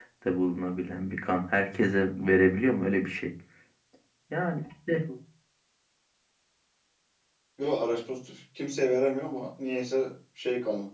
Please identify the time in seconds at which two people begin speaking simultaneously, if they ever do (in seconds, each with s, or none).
none